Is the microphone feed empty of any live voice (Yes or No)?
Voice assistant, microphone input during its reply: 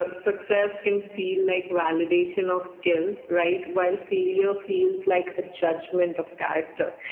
Yes